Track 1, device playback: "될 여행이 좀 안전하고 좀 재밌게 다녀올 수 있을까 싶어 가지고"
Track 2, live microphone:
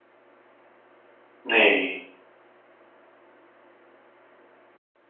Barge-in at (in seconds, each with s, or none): 1.4 s